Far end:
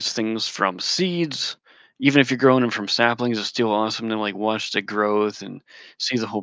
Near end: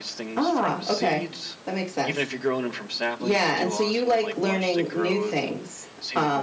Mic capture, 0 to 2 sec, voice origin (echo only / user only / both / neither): both